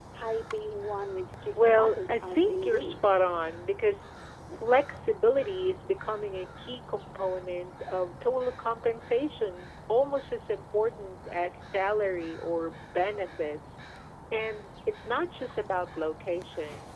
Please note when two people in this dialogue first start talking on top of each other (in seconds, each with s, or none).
1.5 s